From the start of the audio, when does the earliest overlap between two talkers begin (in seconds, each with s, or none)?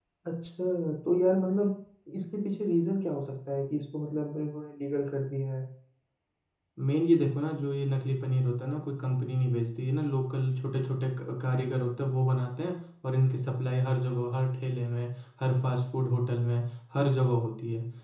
none